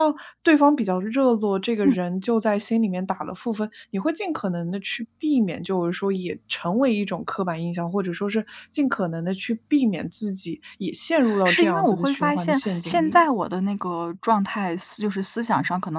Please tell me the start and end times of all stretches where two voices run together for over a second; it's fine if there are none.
11.4-13.2

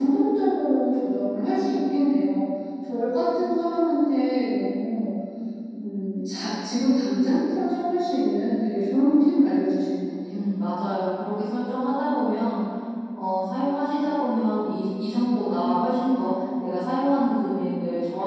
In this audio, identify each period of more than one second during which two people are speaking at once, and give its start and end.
none

